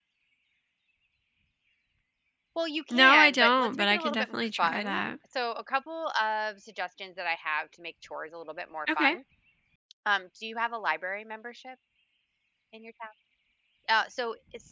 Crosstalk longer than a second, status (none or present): present